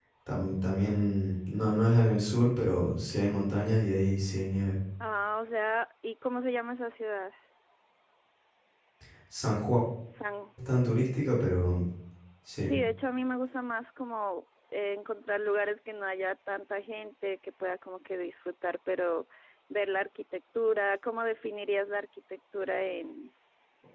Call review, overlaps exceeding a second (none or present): none